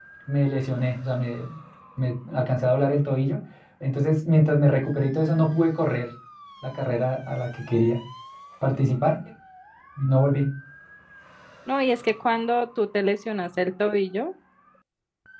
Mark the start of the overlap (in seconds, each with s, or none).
none